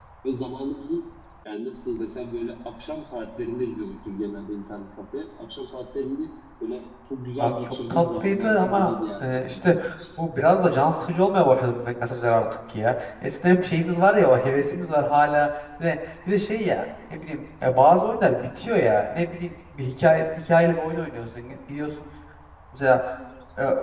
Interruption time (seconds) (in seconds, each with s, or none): 7.4 s